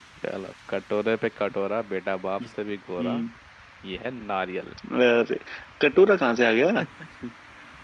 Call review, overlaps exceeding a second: none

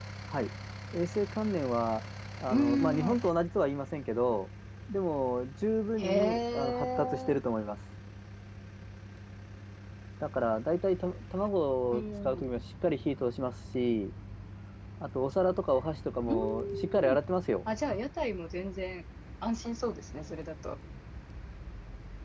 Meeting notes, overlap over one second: present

